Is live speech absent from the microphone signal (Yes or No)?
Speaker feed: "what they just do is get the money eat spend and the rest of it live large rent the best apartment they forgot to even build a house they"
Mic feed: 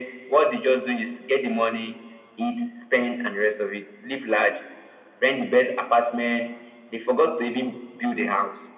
Yes